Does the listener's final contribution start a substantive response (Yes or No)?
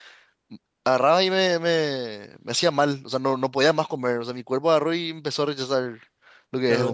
Yes